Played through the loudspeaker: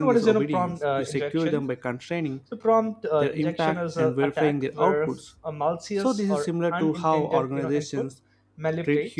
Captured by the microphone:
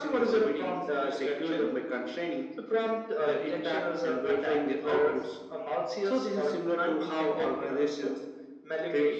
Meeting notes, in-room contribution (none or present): none